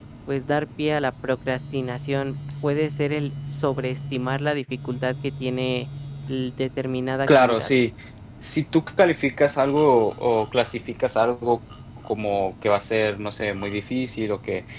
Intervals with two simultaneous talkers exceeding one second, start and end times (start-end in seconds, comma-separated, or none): none